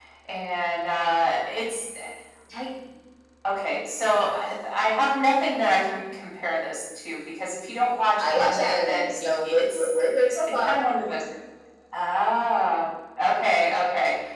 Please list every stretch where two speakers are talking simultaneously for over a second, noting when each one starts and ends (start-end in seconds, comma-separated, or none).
8.2-9.9